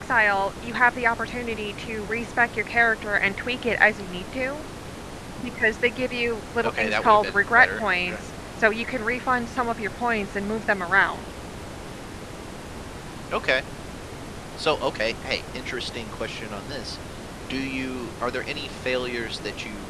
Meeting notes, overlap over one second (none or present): present